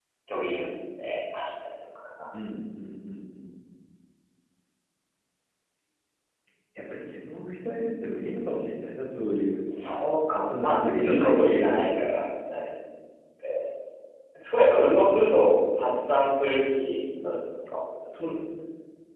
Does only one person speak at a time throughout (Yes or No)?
No